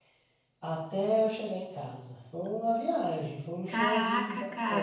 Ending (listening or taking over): taking over